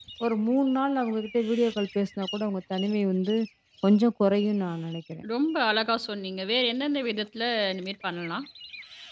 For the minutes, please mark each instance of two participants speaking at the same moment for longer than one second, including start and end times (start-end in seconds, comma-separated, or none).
none